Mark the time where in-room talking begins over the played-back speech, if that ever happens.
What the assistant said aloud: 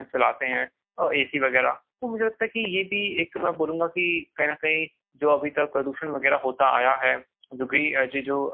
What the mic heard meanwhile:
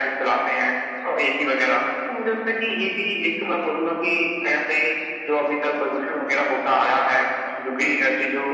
none

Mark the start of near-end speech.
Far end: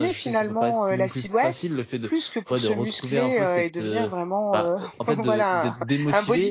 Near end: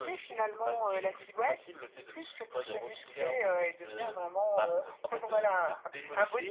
1 s

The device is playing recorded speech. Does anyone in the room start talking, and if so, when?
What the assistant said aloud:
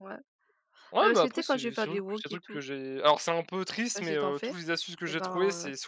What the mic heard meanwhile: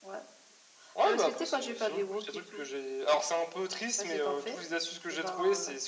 none

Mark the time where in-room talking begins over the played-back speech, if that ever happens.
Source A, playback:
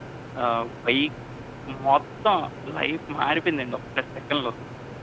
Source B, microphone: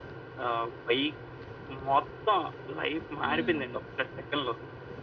3 s

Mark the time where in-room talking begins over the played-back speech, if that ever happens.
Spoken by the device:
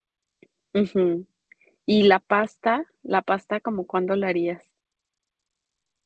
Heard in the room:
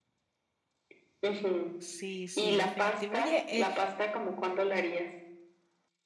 2 s

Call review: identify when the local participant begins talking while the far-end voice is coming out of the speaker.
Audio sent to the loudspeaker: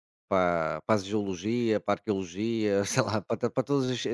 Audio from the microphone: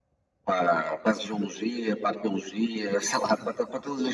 none

